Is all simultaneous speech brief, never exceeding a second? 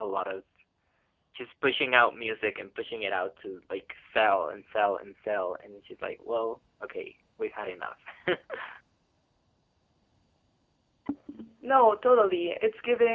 Yes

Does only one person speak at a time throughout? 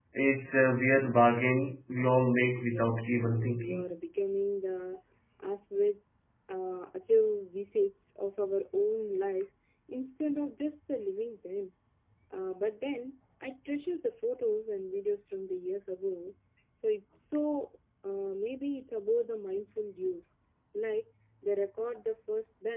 No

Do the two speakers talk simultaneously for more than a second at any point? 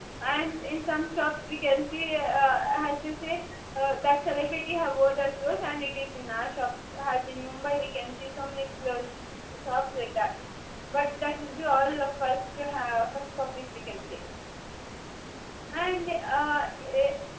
No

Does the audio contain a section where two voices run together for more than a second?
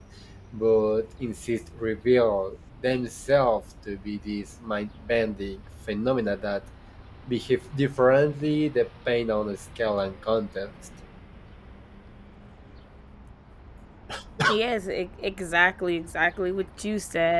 No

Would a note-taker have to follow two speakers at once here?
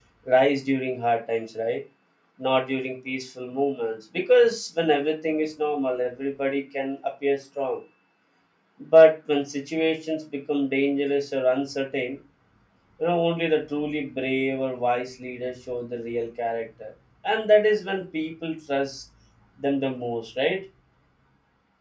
No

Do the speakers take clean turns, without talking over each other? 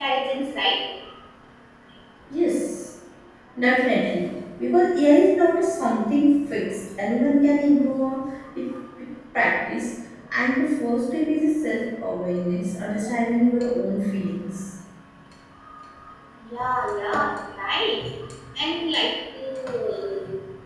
Yes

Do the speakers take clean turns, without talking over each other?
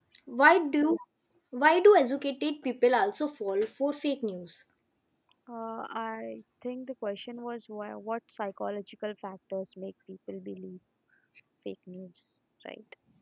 Yes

